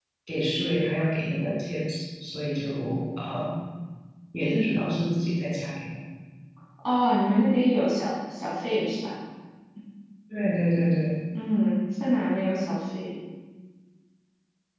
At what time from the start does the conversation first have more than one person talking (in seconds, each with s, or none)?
none